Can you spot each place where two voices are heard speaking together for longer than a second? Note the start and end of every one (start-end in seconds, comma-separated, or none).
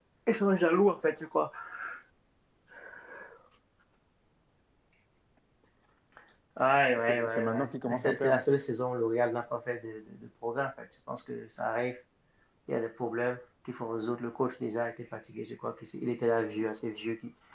7.1-8.4